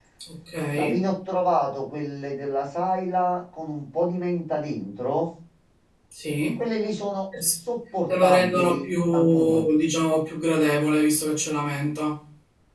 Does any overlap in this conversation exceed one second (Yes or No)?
Yes